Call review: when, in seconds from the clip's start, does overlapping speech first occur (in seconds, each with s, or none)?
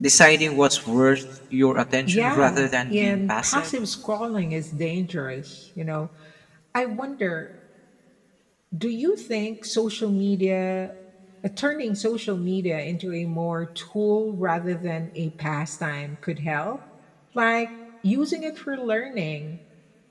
2.1 s